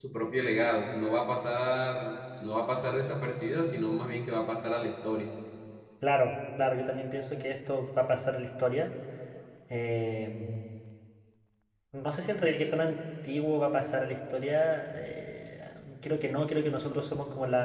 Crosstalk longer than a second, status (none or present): none